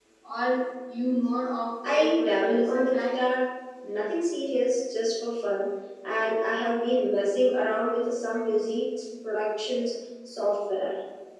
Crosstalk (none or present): present